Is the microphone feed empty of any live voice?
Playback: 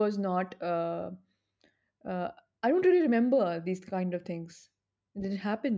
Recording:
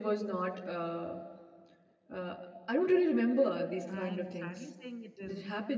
No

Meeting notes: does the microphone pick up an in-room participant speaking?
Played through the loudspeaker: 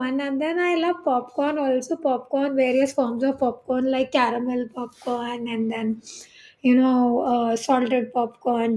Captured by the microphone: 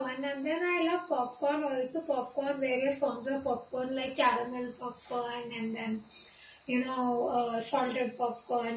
No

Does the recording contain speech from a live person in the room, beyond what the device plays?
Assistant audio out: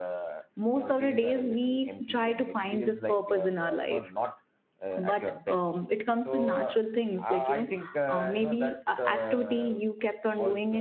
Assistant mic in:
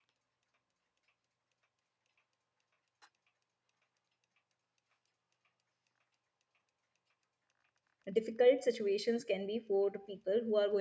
Yes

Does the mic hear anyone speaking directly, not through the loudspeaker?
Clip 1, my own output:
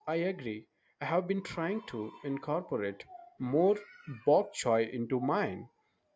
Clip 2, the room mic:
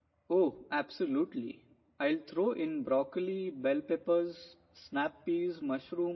Yes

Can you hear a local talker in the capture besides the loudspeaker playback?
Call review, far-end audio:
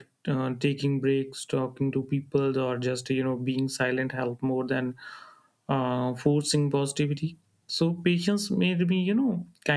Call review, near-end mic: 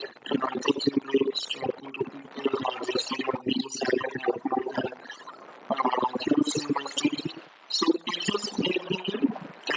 No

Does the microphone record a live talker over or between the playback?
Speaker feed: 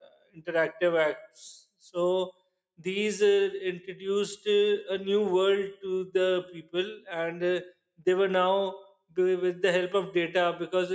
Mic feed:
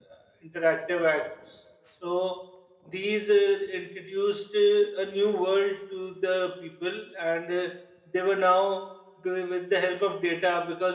No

